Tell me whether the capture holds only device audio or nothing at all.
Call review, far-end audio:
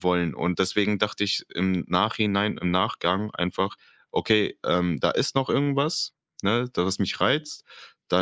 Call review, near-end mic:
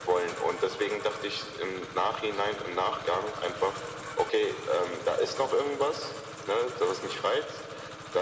Yes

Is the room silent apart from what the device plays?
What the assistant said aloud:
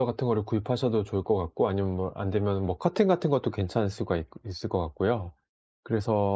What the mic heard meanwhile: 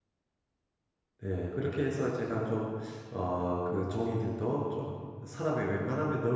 No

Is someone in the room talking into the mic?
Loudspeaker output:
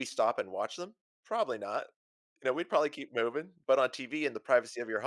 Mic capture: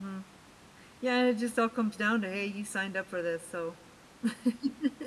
Yes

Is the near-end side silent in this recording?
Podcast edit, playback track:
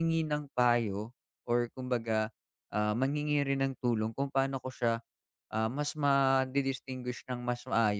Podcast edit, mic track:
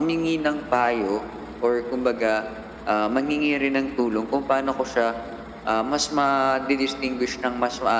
Yes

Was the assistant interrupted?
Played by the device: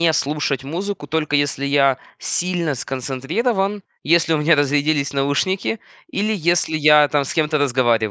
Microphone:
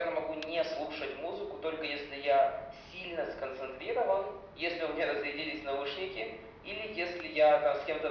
No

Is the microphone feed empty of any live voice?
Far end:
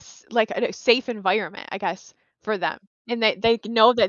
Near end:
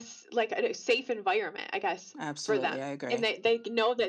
No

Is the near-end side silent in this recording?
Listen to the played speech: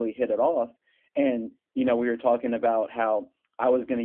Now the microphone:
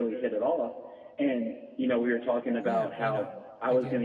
No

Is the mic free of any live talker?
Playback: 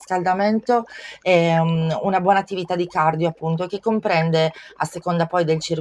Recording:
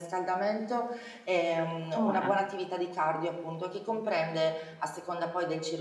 No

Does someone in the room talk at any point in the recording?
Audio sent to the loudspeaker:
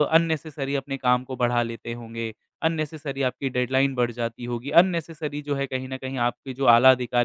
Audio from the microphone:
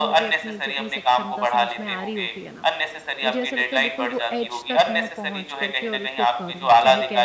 Yes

